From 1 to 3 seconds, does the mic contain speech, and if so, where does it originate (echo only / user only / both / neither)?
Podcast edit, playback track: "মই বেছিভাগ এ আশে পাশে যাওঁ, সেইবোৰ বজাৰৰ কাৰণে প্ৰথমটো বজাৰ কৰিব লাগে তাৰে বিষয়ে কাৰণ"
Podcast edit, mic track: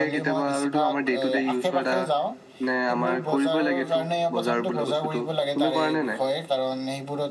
both